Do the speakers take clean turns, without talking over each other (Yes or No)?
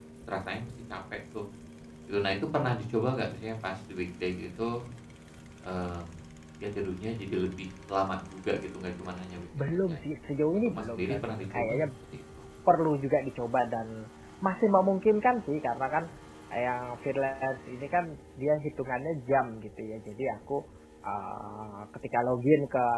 No